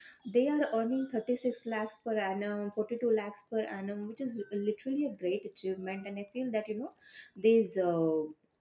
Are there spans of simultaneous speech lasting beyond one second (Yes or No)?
No